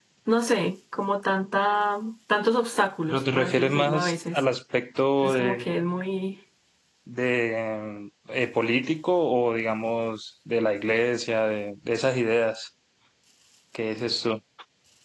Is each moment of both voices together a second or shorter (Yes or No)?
No